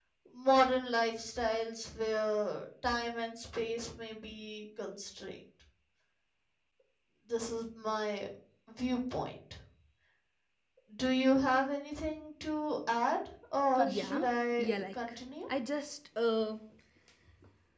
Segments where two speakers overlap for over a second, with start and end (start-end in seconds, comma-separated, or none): 13.9-15.2